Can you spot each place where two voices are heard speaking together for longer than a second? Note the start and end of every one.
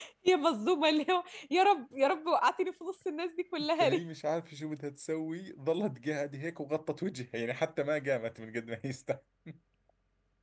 none

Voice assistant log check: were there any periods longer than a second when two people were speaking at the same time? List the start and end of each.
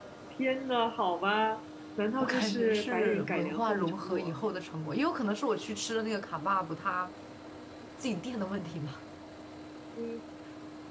2.2-4.3

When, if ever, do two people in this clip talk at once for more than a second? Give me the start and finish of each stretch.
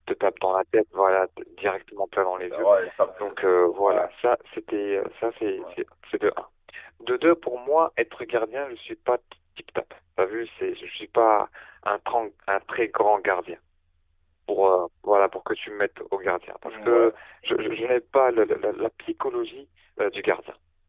none

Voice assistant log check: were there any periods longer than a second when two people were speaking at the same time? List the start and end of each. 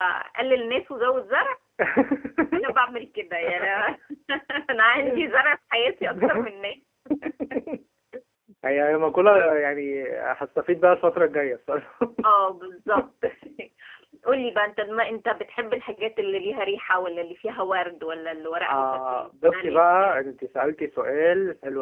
18.6-20.2

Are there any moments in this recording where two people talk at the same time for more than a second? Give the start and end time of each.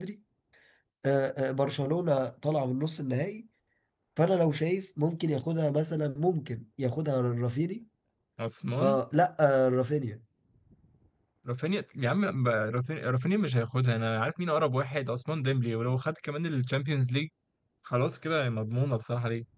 none

